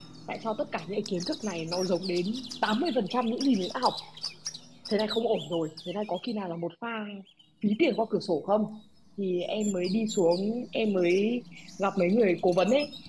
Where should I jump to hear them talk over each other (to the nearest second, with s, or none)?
none